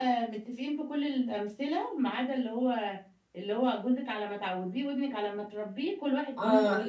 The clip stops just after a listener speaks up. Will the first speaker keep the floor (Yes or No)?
No